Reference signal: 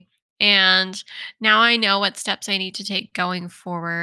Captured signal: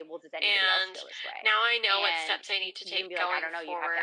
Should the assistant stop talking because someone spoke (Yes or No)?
Yes